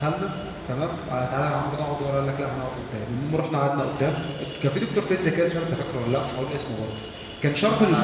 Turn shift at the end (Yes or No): No